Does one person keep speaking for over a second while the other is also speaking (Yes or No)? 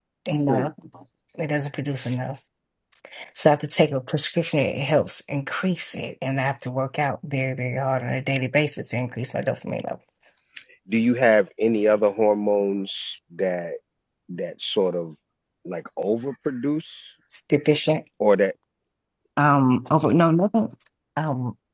No